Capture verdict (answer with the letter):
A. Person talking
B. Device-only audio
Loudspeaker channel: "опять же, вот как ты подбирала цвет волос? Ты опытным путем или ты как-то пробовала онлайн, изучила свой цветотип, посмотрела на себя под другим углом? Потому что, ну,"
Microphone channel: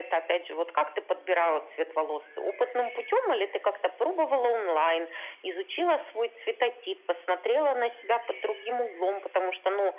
B